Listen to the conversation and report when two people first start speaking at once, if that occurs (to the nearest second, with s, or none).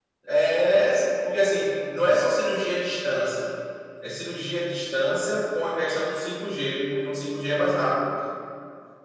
none